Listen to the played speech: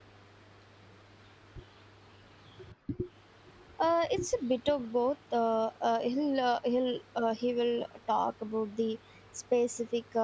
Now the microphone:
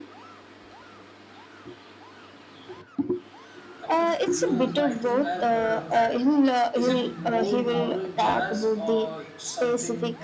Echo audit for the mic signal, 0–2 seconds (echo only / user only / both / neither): neither